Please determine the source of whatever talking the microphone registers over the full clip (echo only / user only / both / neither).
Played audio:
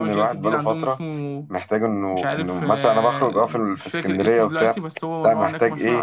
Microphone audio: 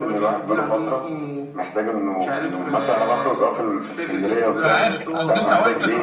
both